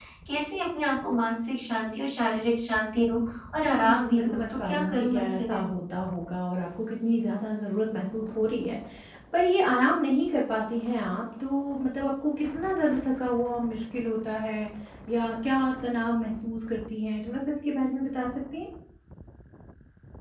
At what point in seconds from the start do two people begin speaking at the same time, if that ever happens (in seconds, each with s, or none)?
3.7 s